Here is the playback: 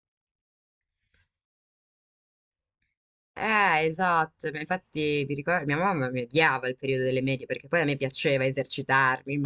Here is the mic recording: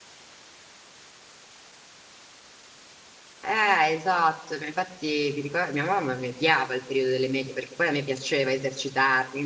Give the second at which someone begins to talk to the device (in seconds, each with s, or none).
none